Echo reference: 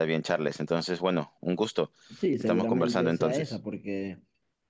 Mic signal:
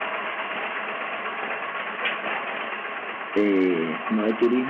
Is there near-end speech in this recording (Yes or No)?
Yes